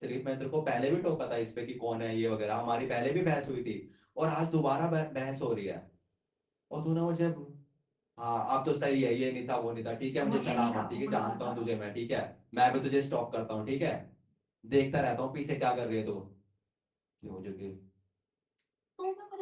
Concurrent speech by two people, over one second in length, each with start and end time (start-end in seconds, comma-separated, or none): 10.2-11.6